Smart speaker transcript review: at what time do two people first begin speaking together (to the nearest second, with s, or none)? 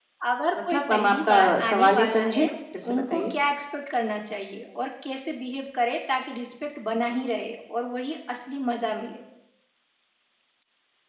1 s